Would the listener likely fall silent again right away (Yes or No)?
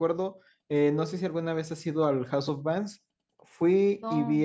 Yes